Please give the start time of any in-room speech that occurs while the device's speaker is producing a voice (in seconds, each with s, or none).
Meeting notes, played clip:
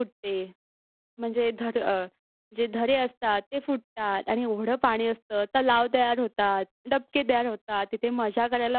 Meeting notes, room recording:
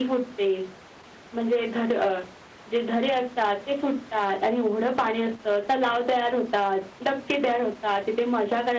none